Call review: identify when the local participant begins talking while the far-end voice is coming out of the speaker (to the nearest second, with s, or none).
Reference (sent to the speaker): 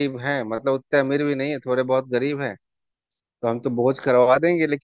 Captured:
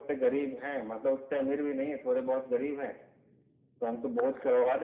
none